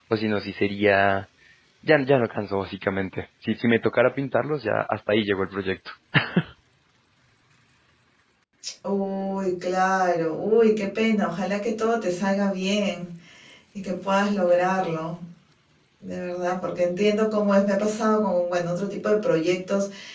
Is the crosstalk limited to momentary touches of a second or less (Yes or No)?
Yes